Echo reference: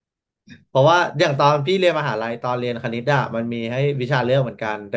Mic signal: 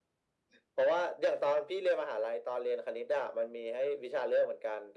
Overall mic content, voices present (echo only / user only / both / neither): echo only